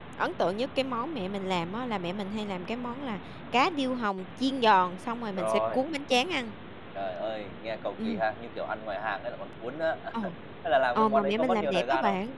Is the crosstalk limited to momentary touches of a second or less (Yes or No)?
No